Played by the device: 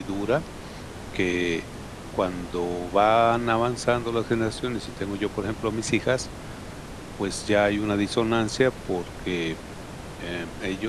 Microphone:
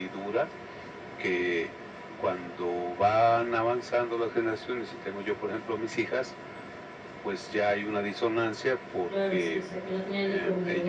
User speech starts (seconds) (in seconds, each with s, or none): 9.1 s